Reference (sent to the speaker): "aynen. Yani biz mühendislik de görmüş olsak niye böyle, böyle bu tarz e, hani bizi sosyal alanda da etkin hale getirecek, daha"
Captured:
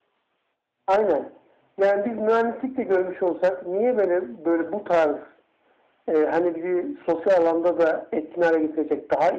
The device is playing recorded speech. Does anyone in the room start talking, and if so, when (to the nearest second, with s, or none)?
none